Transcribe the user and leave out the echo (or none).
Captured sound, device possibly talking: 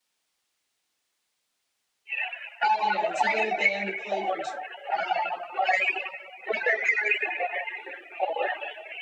you know to get a band to play for